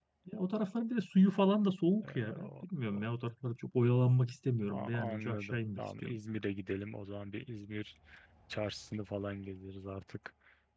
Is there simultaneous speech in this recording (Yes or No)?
Yes